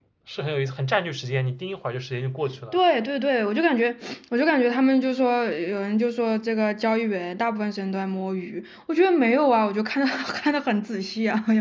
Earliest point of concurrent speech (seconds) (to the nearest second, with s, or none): none